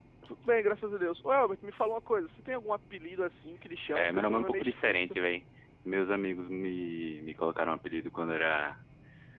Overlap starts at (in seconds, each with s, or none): 3.9 s